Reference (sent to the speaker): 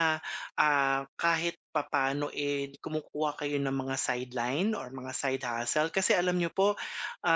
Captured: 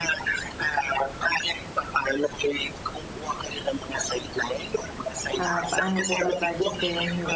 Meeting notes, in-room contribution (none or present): present